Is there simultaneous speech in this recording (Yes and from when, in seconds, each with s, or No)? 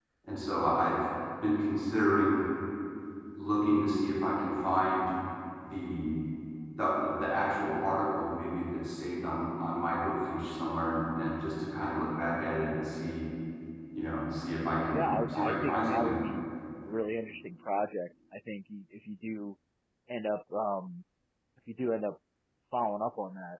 Yes, from 14.9 s